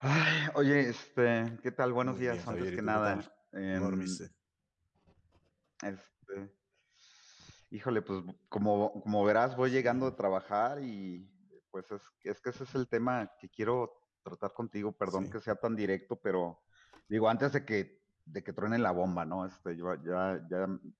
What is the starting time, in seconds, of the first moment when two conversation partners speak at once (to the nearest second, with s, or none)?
2 s